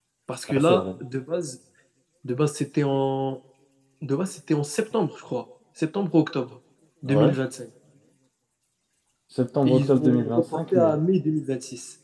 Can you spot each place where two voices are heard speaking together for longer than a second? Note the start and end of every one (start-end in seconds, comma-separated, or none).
9.7-11.0